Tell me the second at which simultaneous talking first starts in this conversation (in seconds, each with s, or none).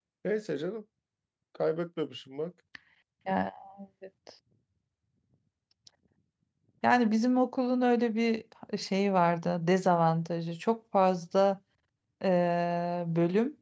none